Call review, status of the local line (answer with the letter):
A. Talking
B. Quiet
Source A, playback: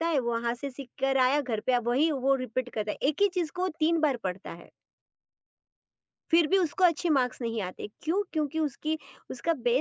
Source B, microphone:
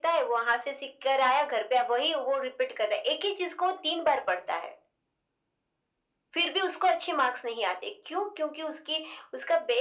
B